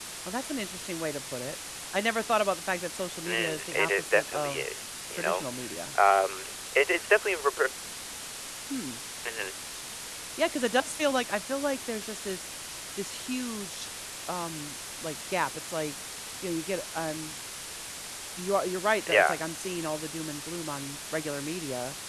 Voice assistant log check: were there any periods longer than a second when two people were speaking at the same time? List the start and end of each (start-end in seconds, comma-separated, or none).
3.3-4.7